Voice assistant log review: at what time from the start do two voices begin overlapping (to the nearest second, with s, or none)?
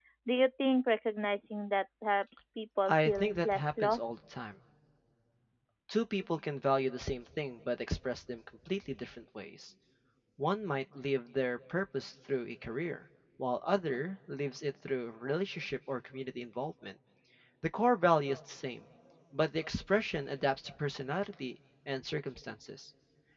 3 s